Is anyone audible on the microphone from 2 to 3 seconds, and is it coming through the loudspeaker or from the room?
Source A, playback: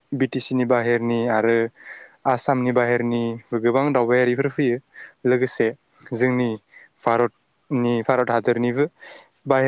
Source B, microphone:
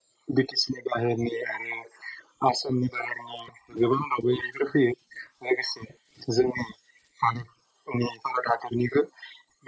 echo only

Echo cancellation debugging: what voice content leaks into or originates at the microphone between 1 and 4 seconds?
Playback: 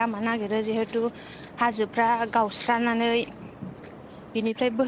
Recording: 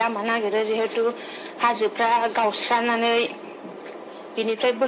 echo only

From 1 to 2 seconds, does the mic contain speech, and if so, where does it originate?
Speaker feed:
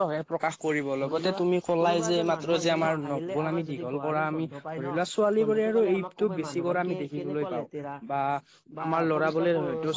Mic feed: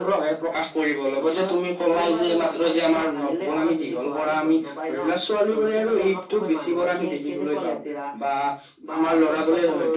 echo only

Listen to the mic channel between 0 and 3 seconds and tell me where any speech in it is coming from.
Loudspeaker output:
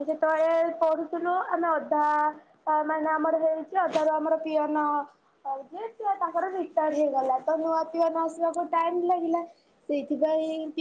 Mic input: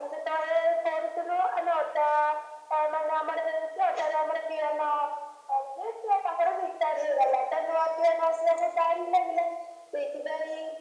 echo only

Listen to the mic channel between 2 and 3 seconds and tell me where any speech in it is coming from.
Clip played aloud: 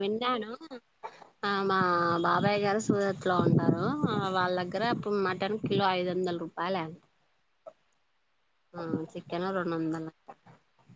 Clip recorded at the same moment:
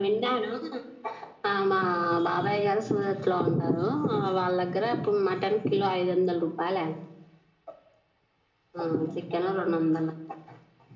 echo only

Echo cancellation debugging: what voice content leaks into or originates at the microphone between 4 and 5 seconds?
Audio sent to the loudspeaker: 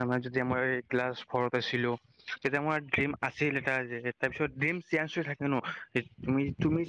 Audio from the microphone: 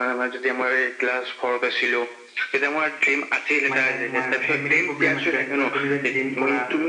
both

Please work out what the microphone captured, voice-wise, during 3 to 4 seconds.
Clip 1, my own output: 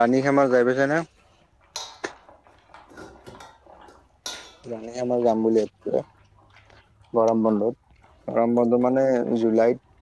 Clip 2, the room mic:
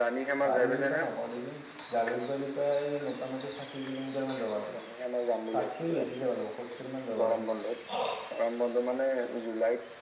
user only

